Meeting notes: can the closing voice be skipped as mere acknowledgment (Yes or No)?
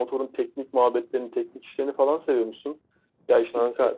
Yes